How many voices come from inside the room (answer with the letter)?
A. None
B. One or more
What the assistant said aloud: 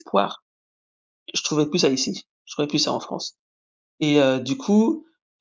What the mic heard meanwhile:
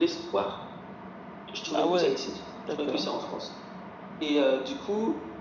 B